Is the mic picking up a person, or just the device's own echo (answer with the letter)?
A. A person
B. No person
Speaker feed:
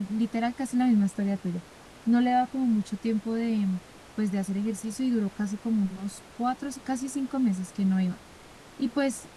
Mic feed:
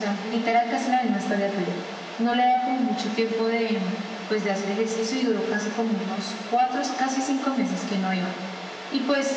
B